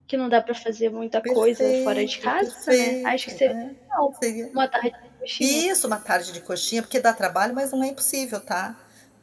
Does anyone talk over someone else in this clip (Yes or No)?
Yes